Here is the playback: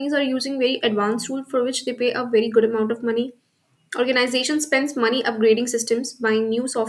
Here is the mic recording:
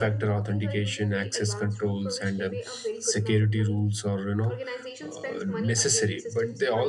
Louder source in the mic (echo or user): user